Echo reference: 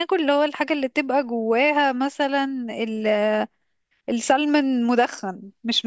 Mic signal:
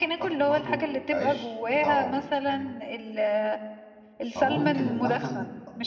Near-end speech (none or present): present